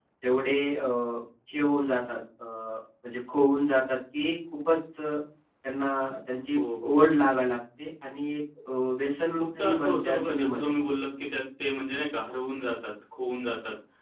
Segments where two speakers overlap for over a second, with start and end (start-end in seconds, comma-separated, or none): 9.4-10.7